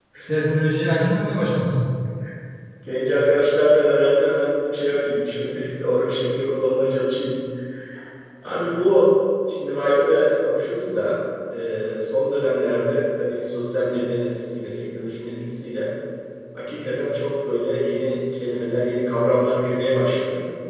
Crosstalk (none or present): none